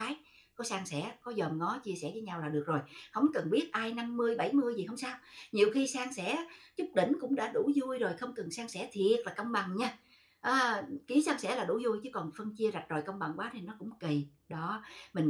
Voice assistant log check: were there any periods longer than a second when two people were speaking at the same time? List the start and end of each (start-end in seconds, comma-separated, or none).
none